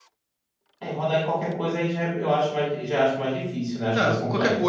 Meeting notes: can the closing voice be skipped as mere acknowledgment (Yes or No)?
No